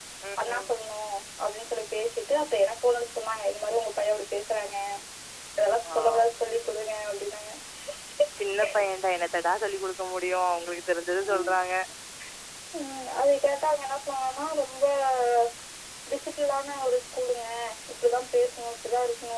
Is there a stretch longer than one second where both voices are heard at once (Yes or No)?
No